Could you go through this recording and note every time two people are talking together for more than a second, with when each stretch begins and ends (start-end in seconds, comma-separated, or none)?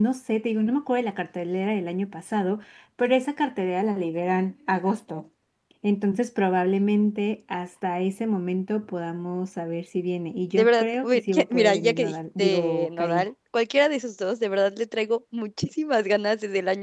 10.6-13.2